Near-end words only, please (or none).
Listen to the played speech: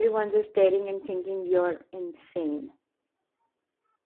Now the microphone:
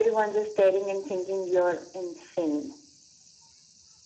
none